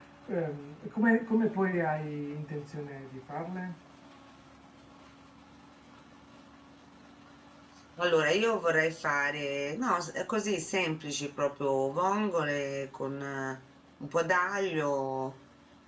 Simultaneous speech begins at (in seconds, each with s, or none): none